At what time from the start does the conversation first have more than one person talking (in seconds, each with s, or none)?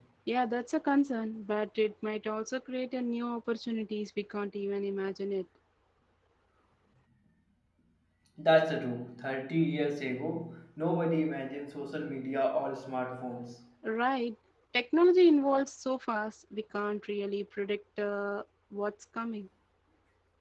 none